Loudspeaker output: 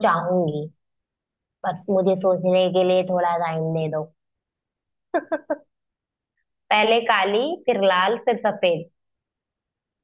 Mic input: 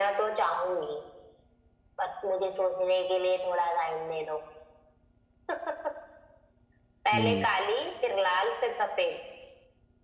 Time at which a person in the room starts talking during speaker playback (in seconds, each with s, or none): 7.1 s